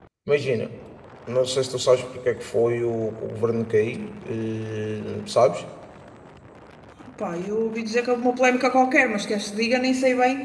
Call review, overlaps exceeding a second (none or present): none